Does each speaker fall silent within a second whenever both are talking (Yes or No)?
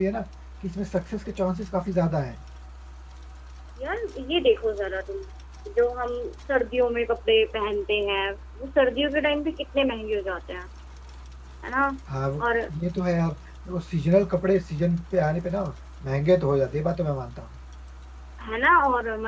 Yes